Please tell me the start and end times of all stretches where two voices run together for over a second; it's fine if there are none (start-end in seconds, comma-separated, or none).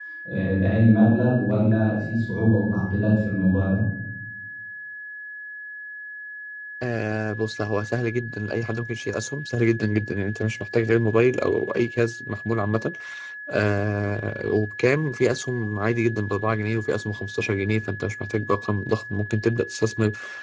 none